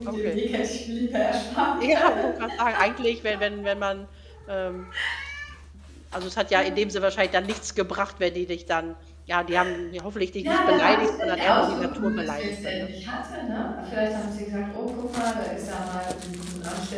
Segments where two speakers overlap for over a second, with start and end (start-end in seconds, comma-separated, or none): 10.4-12.8